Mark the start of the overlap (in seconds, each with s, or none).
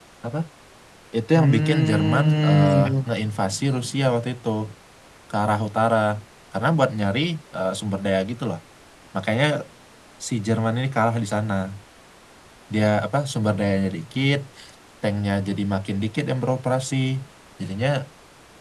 1.3 s